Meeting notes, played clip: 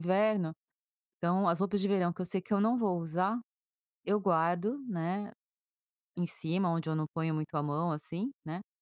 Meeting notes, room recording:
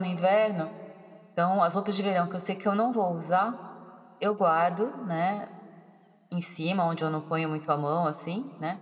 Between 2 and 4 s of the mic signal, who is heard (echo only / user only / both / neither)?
echo only